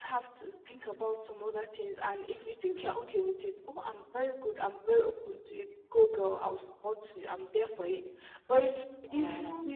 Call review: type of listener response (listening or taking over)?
listening